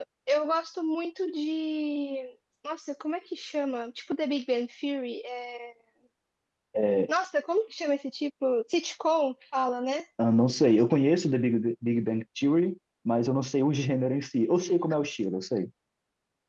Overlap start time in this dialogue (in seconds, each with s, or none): none